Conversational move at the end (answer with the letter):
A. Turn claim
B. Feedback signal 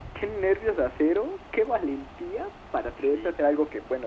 B